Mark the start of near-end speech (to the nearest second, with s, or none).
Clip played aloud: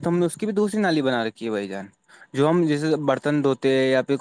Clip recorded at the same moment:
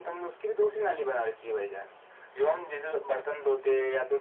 none